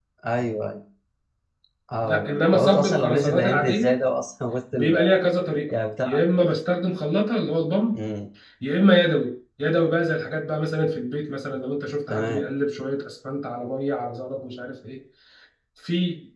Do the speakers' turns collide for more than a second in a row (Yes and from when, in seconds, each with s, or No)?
Yes, from 2.0 s